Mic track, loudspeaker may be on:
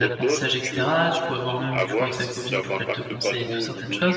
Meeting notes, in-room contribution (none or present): present